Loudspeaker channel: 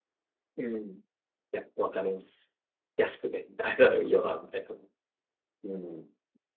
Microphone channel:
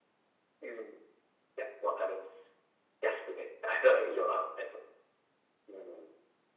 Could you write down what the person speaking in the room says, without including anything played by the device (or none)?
none